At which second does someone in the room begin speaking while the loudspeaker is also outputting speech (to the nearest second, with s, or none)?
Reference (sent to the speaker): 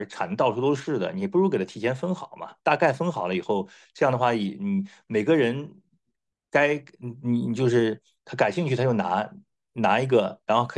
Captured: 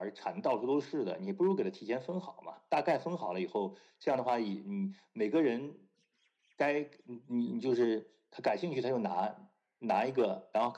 none